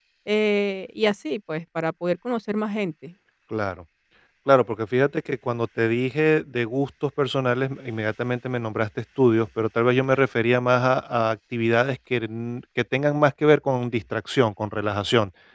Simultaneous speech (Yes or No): No